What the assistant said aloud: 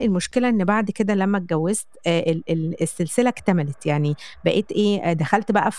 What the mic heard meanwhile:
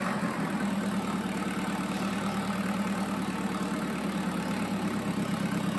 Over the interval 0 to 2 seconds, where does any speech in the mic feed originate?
neither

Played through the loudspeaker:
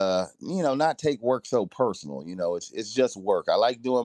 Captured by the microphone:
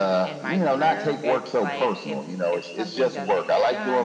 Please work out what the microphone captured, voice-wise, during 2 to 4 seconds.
both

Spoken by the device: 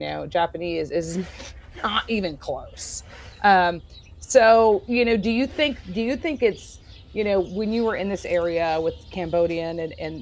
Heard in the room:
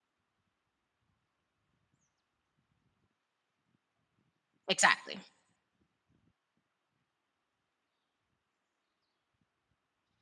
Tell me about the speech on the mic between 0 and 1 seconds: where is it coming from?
neither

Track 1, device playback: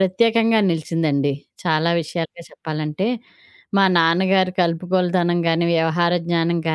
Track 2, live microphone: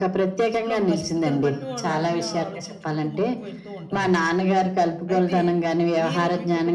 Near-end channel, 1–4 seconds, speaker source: both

